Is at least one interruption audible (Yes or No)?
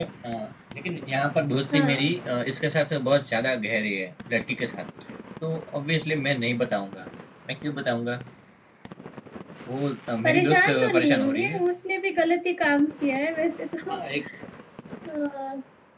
Yes